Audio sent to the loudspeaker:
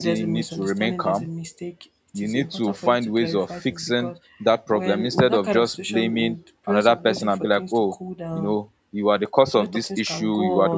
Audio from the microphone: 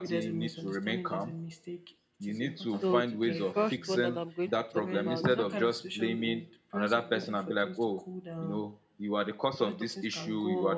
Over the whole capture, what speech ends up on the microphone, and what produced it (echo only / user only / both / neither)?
both